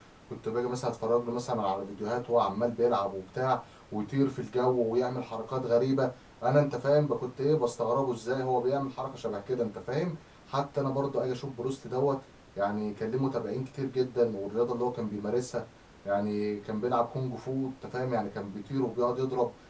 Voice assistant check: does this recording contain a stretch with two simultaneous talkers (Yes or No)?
No